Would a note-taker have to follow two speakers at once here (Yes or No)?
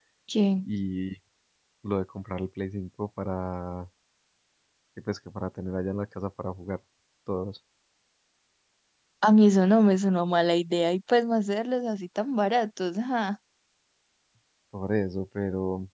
No